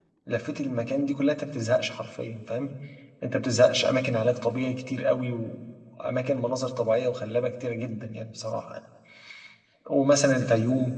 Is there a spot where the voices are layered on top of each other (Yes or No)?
No